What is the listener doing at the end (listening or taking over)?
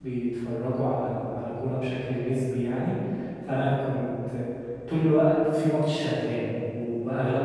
listening